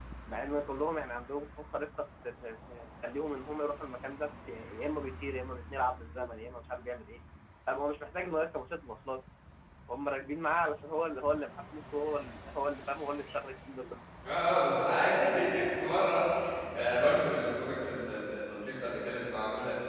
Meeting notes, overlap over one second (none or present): none